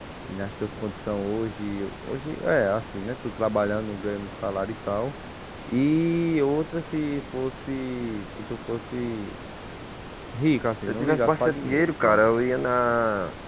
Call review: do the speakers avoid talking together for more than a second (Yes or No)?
No